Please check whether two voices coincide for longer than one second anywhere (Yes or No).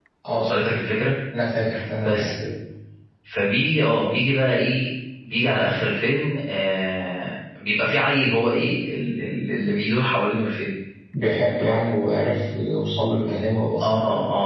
No